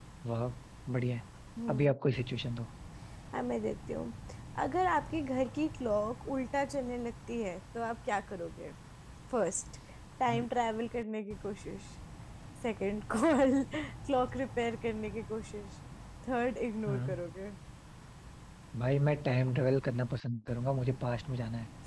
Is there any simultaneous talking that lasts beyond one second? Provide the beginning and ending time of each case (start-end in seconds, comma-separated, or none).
none